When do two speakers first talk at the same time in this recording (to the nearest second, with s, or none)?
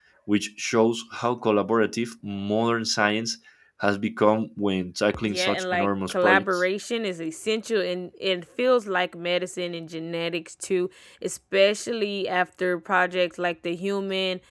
5 s